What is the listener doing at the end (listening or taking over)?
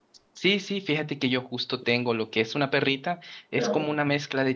listening